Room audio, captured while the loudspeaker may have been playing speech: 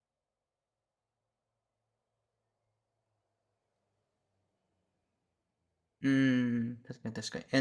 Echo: none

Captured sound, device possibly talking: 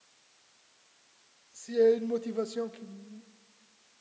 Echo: none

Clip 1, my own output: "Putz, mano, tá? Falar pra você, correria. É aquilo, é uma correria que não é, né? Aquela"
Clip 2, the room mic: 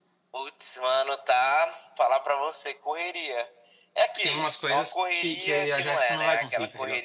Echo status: present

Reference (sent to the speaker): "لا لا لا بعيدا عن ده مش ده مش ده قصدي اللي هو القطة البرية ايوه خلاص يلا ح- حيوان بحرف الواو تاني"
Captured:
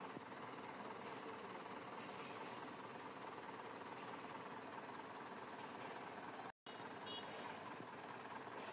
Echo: none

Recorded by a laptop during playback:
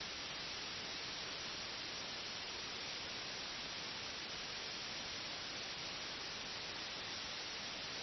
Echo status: none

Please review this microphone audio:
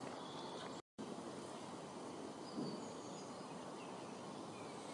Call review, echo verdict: none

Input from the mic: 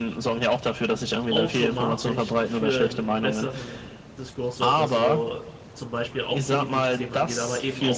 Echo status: present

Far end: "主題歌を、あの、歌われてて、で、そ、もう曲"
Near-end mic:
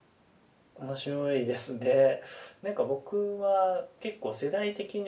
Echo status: none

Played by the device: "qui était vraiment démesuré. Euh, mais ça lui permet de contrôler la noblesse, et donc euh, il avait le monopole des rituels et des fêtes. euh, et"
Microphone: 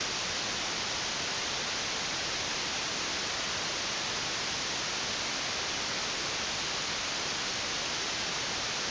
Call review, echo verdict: none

